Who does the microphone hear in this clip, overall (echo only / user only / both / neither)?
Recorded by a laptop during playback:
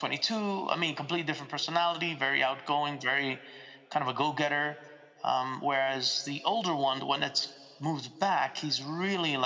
echo only